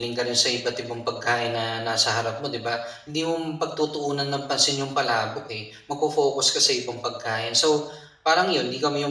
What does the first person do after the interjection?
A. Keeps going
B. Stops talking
A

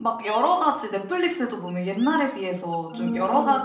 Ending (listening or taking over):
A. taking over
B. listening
B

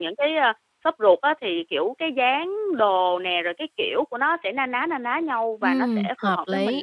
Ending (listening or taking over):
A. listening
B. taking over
B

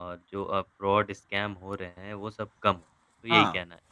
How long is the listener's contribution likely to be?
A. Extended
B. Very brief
A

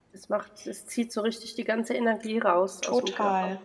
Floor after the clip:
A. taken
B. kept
A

